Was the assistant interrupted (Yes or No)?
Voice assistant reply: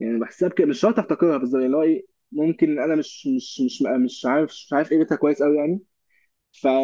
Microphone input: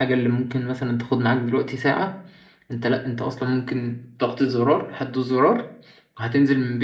Yes